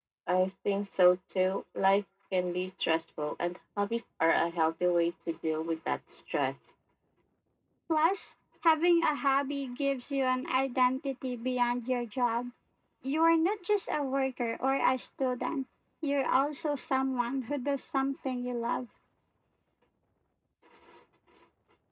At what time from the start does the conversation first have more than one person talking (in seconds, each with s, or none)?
none